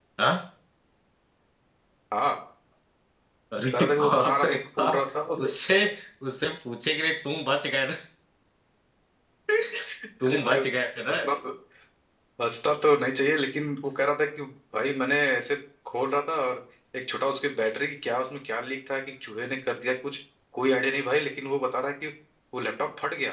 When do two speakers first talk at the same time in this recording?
3.7 s

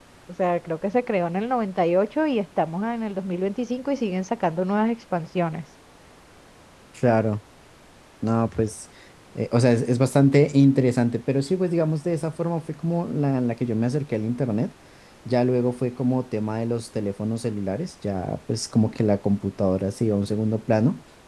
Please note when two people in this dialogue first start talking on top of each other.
none

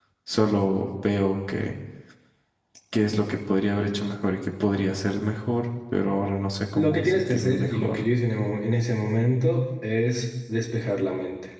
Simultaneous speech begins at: 6.7 s

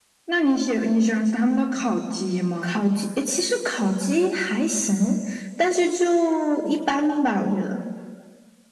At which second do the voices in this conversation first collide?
none

